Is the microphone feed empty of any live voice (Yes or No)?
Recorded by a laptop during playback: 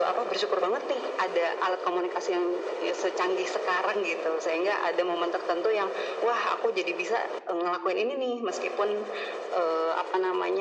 Yes